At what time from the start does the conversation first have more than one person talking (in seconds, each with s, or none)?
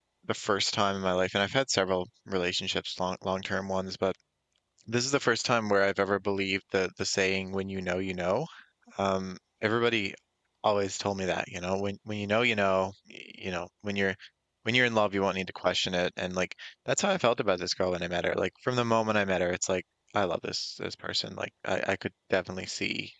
none